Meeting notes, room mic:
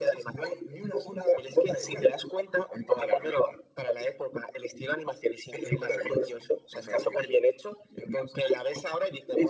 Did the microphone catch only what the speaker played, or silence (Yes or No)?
Yes